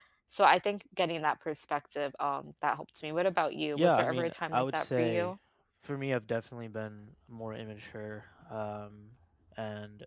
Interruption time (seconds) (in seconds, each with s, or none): 3.8 s